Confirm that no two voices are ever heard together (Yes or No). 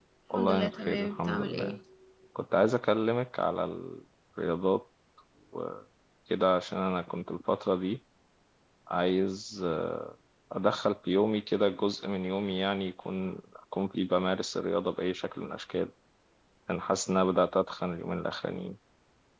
No